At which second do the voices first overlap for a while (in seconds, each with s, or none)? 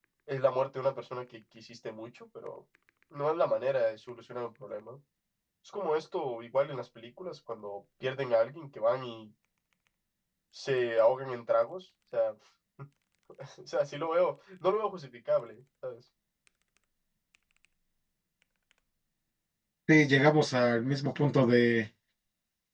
none